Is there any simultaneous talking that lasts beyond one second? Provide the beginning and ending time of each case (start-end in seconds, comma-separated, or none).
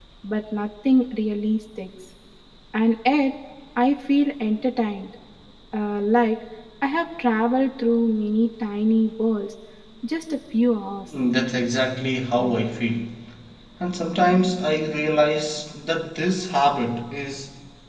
none